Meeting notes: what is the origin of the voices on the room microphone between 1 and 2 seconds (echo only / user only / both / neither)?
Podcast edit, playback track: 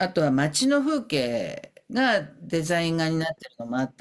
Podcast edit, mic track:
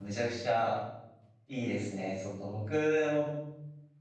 user only